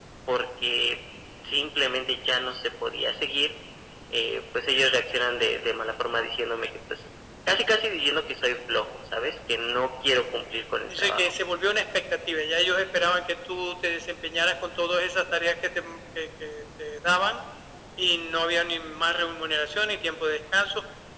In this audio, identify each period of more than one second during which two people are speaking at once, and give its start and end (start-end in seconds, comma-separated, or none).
none